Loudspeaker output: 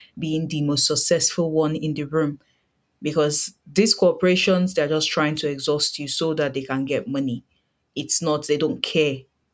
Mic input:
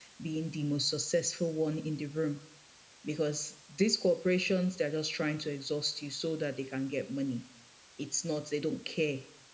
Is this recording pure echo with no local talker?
Yes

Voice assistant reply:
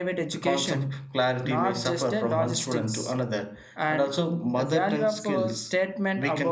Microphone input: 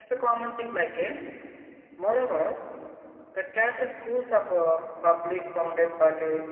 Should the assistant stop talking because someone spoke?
Yes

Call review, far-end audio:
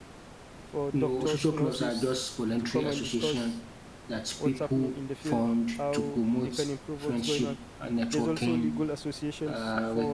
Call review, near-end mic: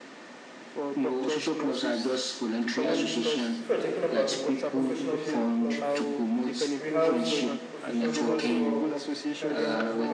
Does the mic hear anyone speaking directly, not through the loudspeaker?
Yes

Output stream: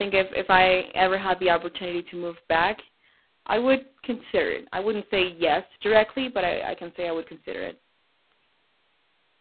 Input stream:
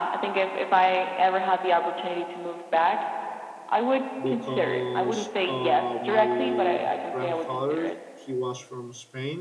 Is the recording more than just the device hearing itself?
Yes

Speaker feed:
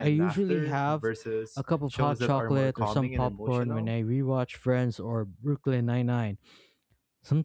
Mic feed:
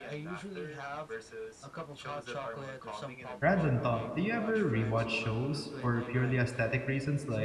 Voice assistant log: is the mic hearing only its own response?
No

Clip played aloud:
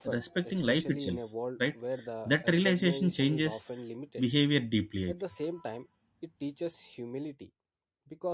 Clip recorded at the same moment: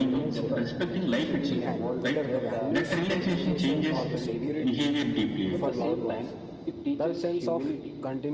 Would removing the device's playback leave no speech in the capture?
No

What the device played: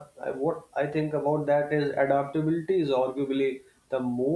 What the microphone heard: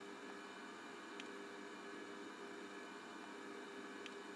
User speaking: No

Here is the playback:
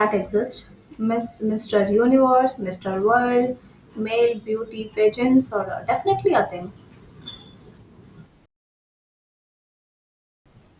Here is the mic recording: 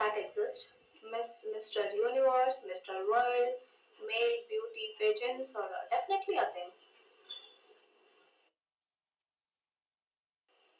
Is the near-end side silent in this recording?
Yes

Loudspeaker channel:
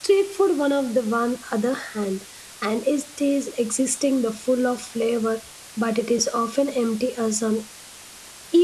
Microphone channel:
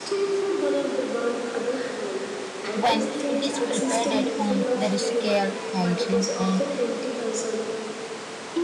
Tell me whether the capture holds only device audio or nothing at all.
No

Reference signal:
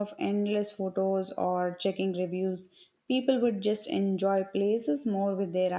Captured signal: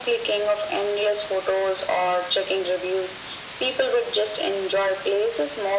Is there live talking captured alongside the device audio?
No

